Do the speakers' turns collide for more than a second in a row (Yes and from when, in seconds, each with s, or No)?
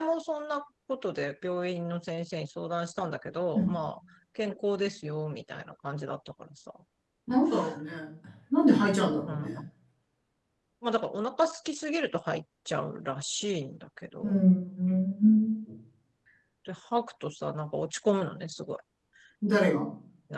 No